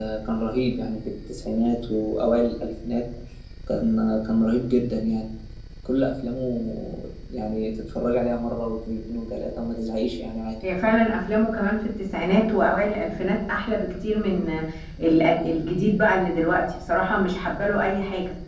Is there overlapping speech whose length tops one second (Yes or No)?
No